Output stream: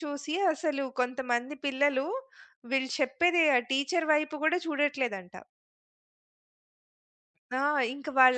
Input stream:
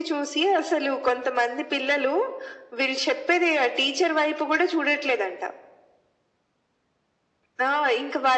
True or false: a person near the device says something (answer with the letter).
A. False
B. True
A